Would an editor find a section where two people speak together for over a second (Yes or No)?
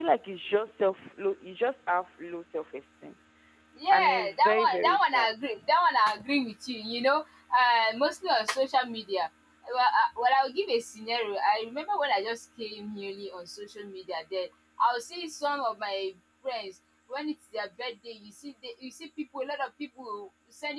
Yes